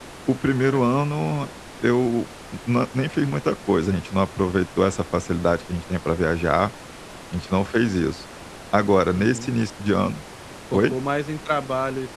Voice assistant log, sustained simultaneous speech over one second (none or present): none